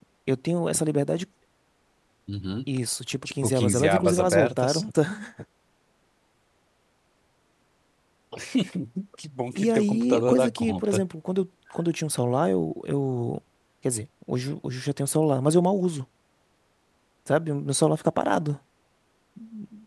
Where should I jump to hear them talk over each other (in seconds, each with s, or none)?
3.4 s